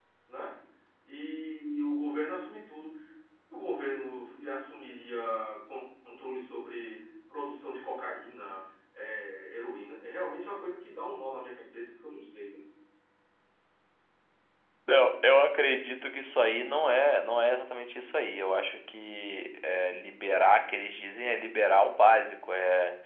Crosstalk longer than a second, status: none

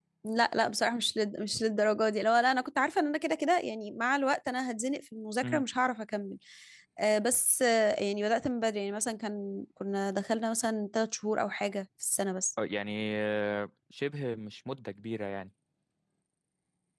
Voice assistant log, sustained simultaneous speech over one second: none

